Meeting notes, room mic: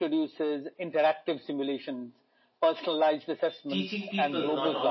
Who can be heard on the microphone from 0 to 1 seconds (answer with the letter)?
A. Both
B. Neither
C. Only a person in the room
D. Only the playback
D